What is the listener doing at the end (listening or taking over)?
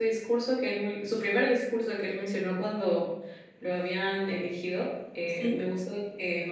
listening